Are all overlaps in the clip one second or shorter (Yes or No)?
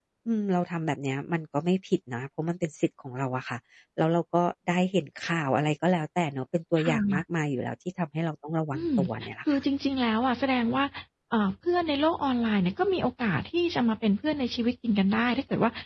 Yes